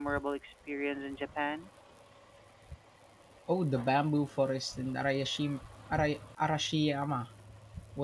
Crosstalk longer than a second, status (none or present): none